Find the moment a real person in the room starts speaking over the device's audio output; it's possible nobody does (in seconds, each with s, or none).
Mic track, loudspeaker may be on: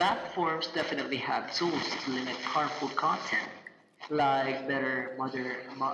none